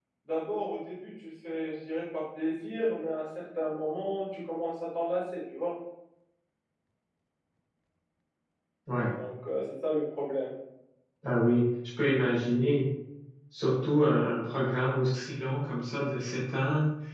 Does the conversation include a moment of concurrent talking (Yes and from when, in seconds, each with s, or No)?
No